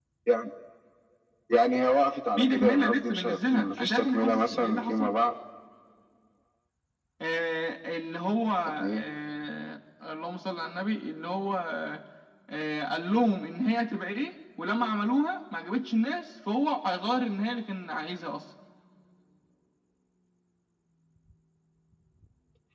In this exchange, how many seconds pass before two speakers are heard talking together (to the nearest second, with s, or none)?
2 s